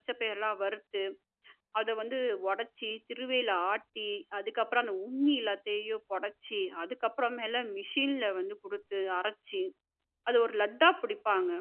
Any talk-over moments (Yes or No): No